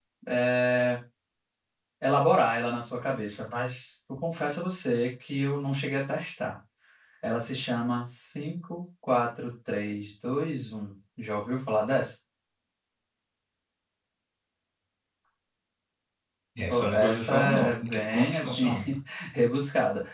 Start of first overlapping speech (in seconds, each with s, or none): 16.7 s